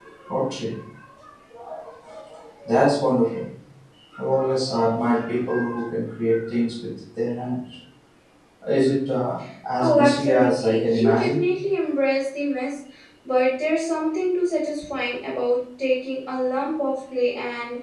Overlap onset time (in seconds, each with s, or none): 9.8 s